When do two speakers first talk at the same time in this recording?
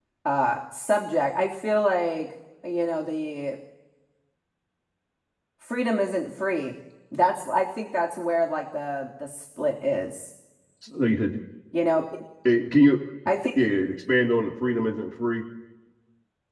none

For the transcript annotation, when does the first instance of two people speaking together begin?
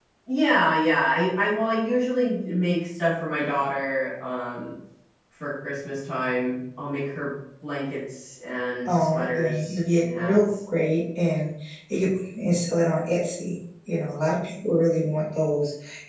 8.8 s

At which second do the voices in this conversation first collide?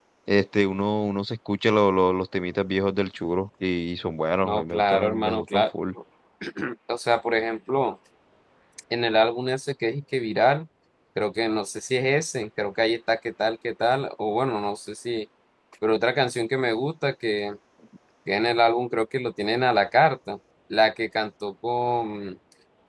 4.4 s

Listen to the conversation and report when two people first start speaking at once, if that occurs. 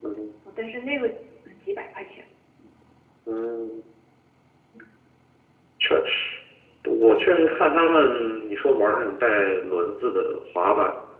none

